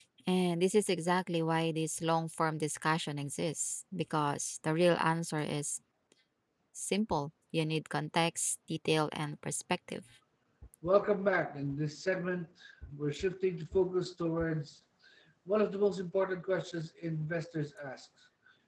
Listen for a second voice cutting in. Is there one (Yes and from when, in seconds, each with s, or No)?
No